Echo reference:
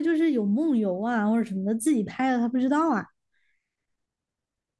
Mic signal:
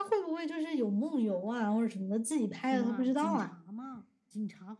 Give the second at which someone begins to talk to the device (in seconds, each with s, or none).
2.5 s